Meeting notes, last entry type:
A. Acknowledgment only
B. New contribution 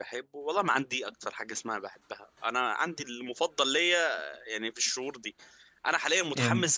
A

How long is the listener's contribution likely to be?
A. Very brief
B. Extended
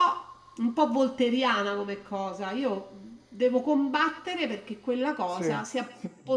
A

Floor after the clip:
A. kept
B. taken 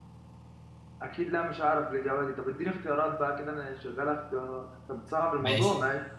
B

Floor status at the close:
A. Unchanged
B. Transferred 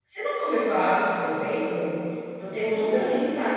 A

